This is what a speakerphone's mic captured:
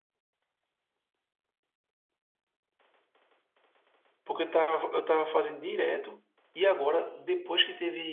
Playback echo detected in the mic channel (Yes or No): No